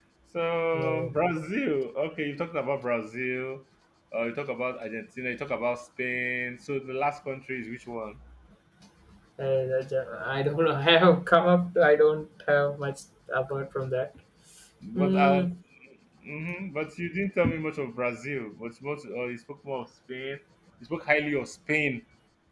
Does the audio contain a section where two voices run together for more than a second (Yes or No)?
No